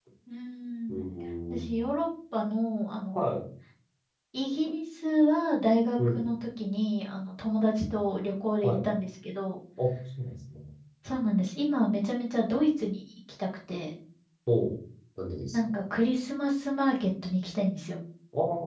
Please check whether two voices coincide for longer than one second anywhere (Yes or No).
No